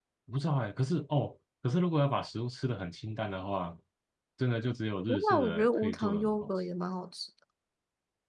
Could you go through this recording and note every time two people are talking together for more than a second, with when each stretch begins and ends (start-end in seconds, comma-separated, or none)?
5.1-6.5